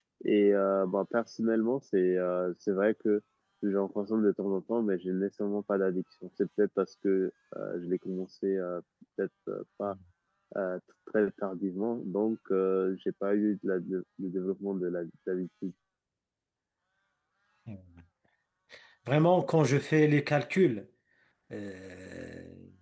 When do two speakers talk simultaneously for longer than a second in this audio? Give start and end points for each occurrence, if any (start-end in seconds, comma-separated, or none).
none